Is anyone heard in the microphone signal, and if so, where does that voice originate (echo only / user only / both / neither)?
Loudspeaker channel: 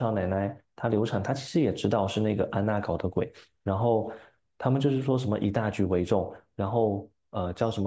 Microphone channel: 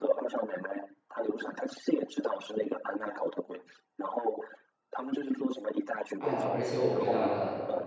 both